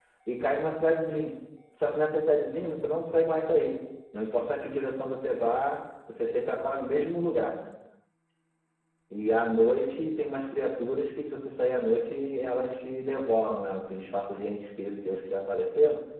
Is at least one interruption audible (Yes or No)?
No